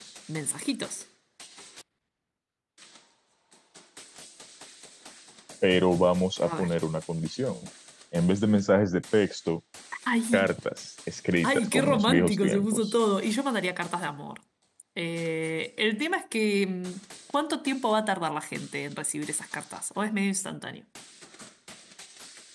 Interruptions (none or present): present